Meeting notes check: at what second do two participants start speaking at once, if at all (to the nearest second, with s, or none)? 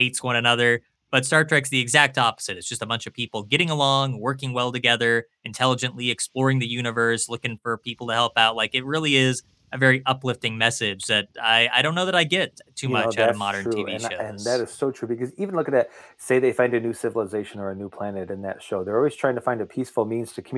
13 s